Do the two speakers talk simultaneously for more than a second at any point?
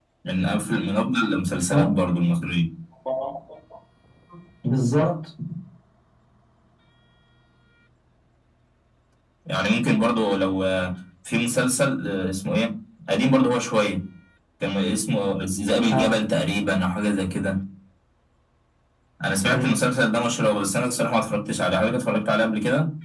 No

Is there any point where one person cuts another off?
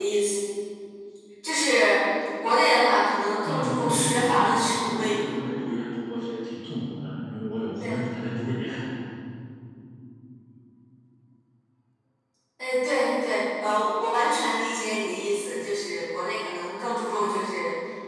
Yes, from 3.4 s

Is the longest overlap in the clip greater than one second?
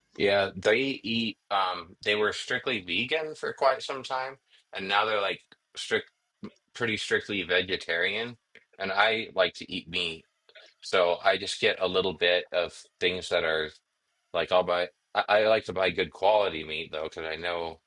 No

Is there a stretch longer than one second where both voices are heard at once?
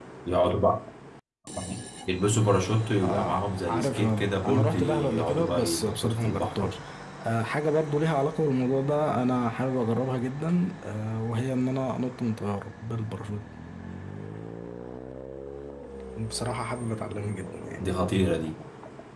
Yes, from 3.0 s

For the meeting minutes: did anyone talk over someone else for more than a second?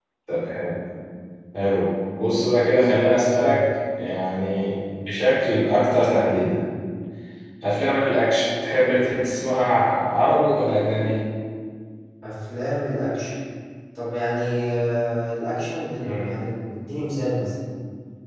No

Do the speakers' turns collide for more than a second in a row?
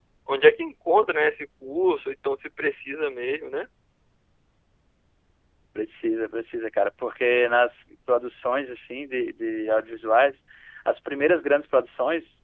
No

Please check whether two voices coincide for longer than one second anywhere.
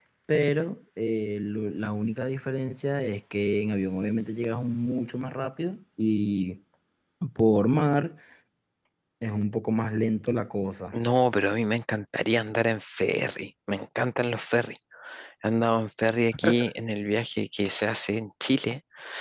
No

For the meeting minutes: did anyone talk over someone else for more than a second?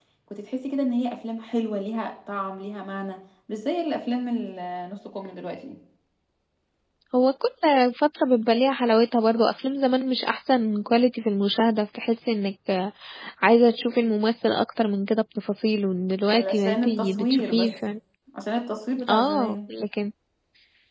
Yes, from 16.3 s

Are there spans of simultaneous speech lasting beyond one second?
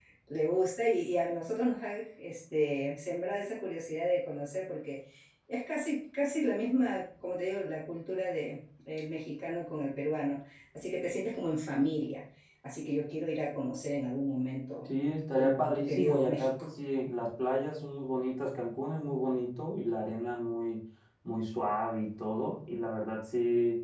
Yes, from 15.4 s

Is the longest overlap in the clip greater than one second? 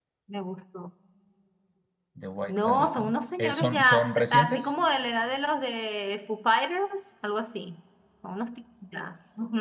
Yes, from 2.5 s

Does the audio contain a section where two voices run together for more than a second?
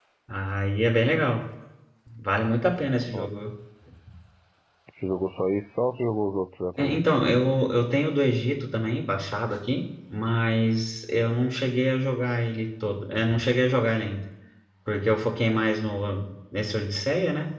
No

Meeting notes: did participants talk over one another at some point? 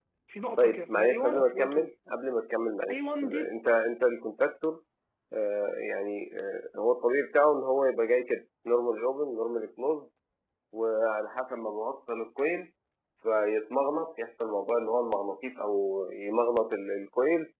Yes, from 0.6 s

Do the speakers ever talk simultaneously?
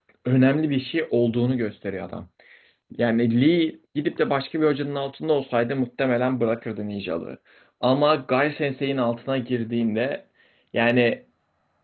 No

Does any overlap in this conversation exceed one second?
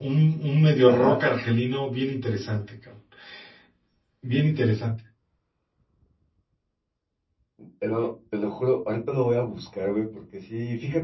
No

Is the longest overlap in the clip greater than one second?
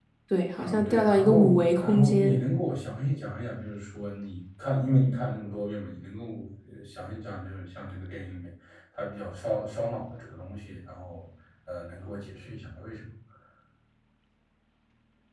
Yes, from 0.6 s

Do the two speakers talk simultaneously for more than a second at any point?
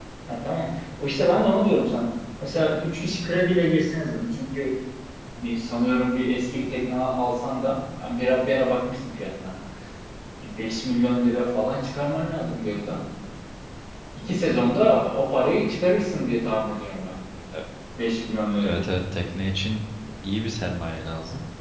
No

